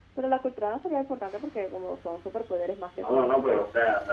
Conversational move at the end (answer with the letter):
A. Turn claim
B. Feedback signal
A